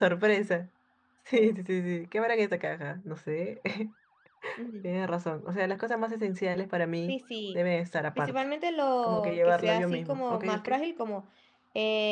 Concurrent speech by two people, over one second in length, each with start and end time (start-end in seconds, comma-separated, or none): 9.0-10.7